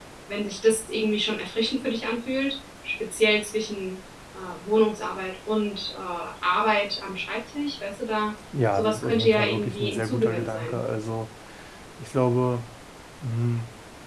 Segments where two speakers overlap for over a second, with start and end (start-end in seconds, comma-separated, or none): 8.7-10.8